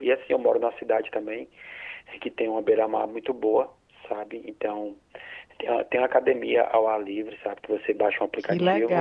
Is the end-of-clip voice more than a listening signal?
No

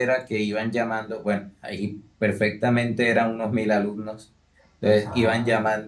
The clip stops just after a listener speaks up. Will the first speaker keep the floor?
Yes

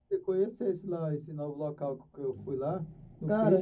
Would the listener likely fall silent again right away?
No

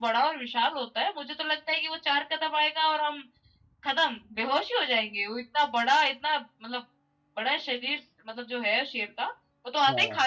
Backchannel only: Yes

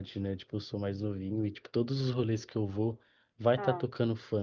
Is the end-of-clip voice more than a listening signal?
No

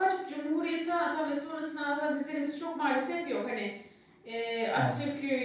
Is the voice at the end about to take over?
No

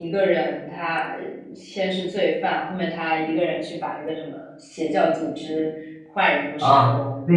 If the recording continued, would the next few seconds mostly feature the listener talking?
Yes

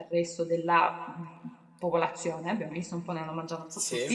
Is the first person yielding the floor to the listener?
No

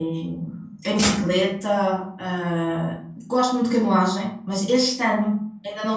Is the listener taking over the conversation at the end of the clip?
No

